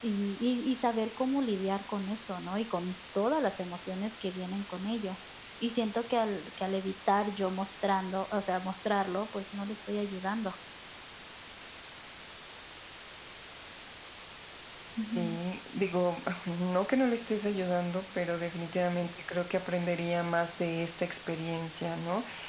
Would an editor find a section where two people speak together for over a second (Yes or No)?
No